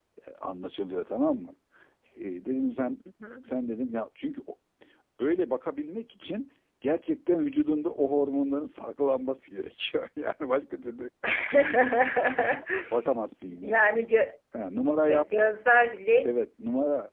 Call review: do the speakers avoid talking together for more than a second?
Yes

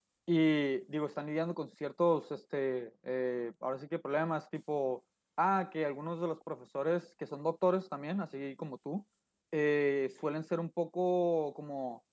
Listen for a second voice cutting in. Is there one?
No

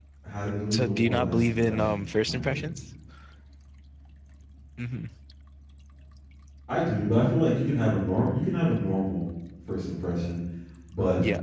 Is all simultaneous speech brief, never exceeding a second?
No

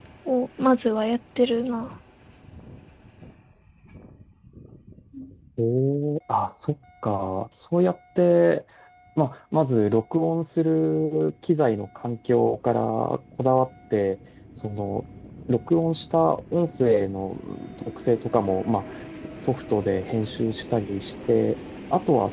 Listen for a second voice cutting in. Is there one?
No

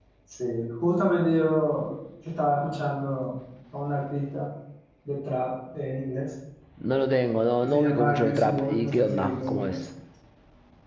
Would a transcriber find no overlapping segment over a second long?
No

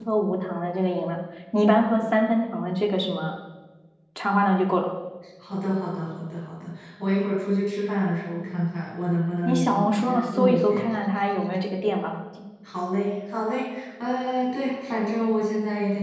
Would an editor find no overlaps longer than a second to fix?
No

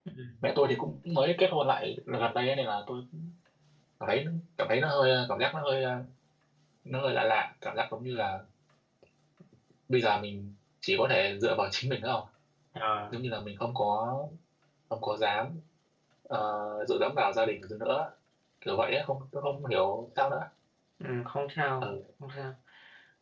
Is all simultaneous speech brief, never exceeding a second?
Yes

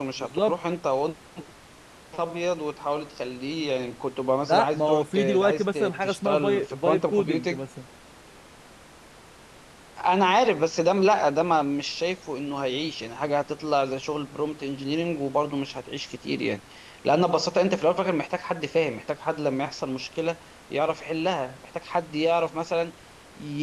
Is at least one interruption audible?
Yes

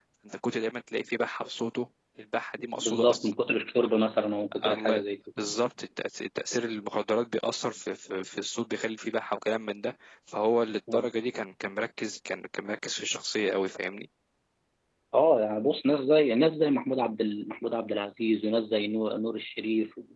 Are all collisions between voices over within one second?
Yes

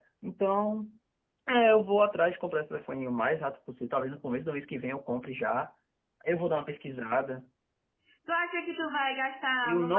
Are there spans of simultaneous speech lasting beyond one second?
No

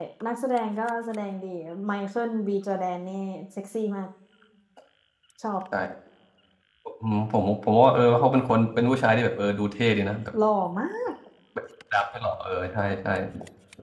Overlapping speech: No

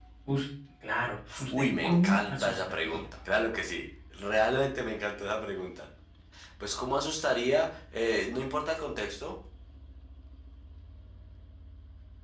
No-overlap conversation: No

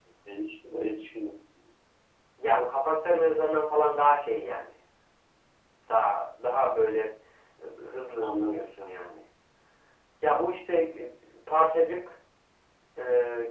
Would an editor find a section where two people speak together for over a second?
No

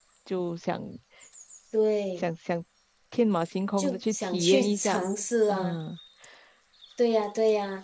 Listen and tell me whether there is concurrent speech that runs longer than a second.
Yes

